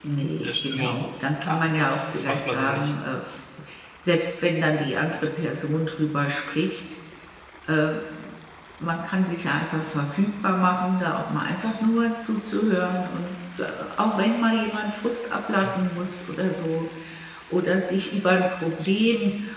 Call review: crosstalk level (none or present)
present